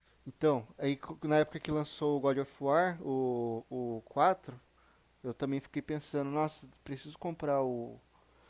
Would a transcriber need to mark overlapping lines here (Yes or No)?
No